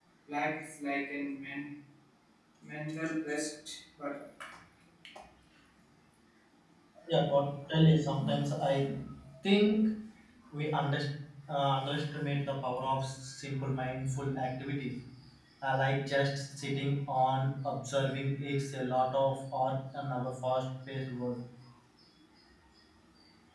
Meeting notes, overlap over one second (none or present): none